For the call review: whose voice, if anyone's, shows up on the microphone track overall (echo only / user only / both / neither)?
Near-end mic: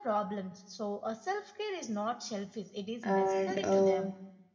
both